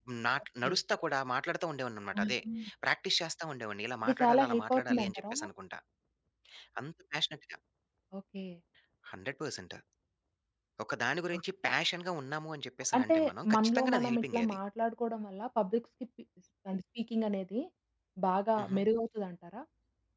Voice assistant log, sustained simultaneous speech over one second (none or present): present